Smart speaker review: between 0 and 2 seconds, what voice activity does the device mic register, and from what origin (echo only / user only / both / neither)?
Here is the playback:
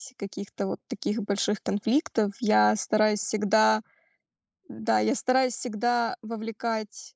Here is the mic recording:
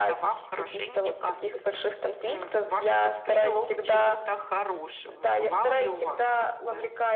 both